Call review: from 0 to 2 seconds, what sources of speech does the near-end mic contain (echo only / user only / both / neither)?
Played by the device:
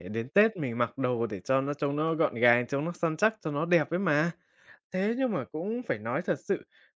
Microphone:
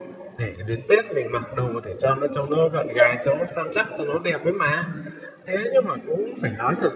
echo only